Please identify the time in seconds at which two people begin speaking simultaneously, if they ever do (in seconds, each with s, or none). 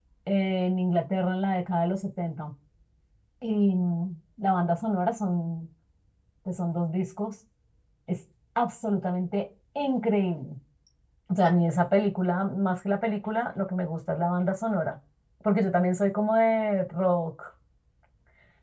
none